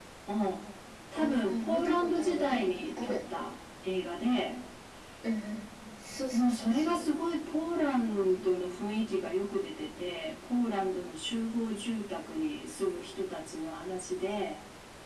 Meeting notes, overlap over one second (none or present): present